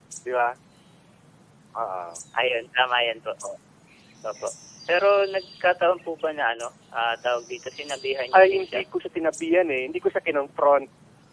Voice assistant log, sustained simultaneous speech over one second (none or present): none